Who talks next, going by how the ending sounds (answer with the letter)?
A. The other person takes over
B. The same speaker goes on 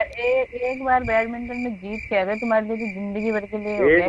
A